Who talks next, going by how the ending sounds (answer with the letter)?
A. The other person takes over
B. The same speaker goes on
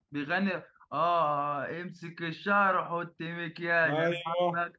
A